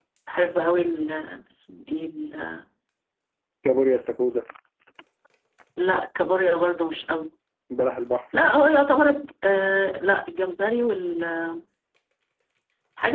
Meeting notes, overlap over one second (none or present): none